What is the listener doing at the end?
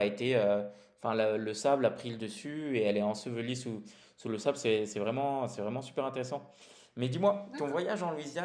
listening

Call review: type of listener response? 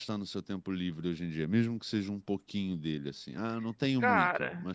taking over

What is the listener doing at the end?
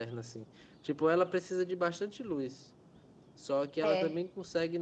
listening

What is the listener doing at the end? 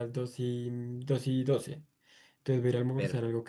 listening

